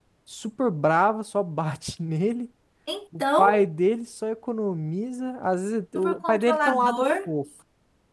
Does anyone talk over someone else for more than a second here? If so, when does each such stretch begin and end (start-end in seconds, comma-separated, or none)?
6.0-7.3